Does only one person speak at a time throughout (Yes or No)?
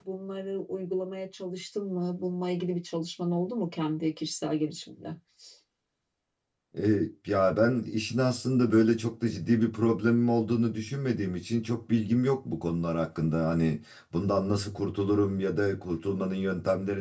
Yes